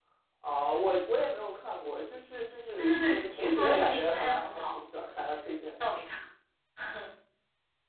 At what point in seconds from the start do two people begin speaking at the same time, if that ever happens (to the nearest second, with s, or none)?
3 s